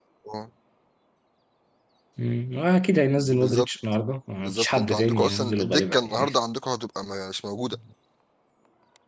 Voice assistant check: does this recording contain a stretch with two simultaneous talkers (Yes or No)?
Yes